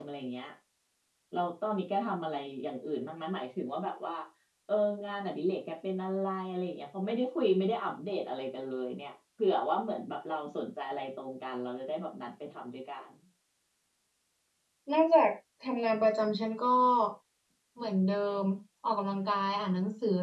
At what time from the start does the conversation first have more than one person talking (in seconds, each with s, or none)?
none